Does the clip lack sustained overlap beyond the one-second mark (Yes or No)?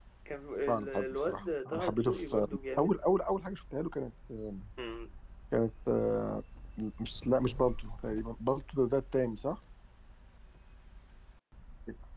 No